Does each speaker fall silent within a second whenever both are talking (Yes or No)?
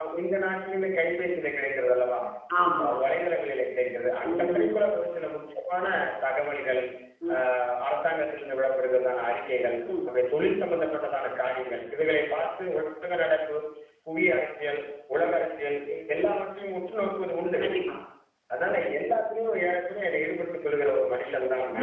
Yes